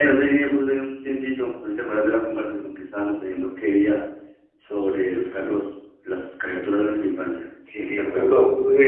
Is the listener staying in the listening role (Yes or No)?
No